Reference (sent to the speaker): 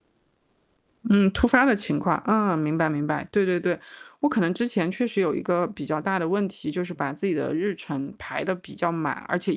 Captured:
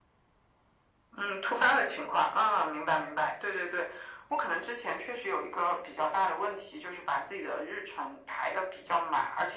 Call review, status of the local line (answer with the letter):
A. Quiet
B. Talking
A